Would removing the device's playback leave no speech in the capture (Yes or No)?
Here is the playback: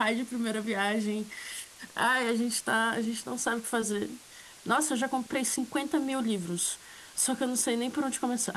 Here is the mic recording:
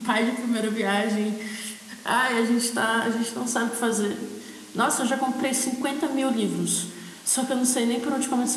Yes